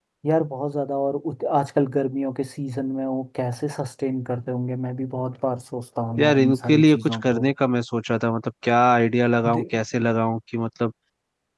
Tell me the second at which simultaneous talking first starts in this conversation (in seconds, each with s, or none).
6.2 s